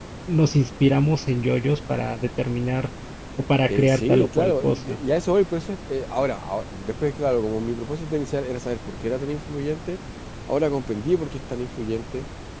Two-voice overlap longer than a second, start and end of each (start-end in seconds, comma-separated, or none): 3.7-5.0